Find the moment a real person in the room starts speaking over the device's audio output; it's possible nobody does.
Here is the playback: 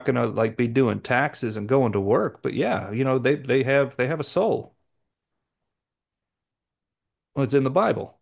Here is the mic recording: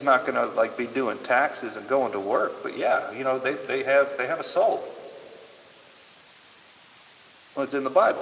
none

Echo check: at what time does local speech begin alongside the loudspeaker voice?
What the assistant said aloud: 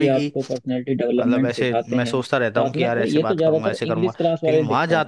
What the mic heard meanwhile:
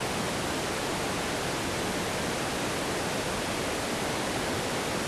none

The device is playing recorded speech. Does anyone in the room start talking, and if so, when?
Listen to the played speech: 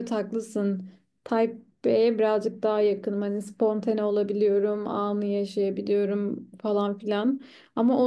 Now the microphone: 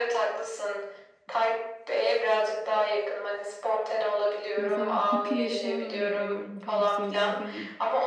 4.6 s

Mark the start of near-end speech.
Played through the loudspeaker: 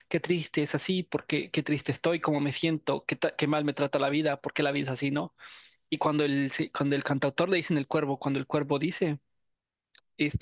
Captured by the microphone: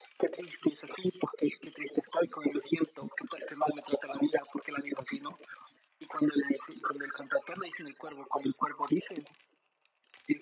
none

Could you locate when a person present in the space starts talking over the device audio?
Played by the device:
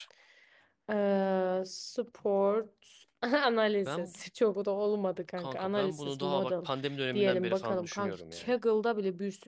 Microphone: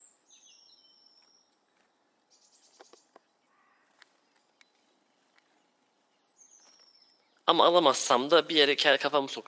7.5 s

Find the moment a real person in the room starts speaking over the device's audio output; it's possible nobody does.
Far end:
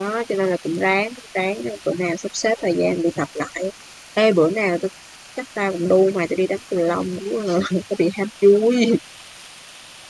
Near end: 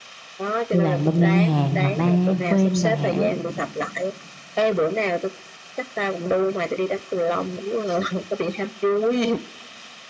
0.7 s

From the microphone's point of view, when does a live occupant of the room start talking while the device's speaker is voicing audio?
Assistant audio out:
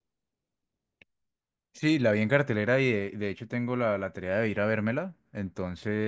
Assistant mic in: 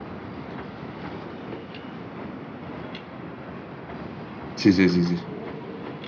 4.5 s

